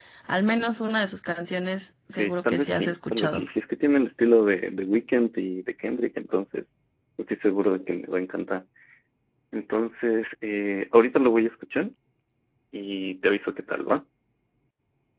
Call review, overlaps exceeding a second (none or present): present